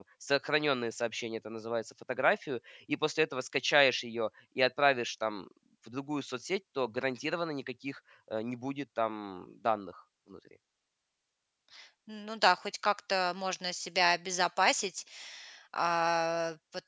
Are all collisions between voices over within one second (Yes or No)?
Yes